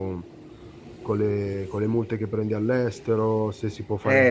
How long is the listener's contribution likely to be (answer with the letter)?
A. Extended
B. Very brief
A